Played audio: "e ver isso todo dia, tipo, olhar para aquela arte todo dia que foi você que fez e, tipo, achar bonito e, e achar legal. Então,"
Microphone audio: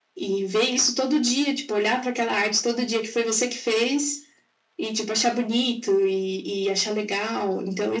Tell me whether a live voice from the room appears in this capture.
No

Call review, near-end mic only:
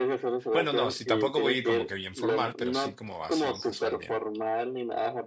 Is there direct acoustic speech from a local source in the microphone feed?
Yes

